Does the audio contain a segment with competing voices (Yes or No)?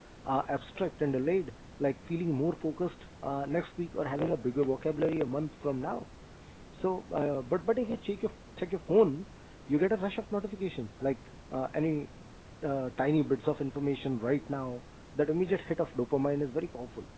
No